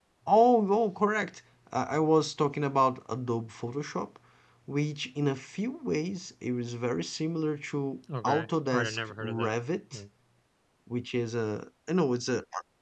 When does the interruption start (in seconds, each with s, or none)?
8.1 s